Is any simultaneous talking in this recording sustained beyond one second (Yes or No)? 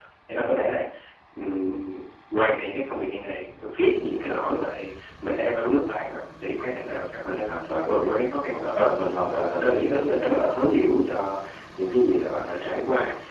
Yes